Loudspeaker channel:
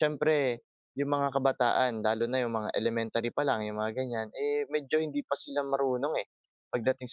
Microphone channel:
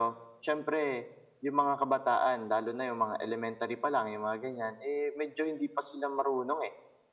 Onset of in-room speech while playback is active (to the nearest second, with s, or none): none